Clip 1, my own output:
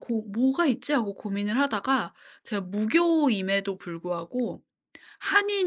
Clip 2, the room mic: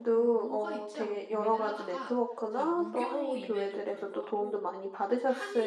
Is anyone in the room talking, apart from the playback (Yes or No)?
Yes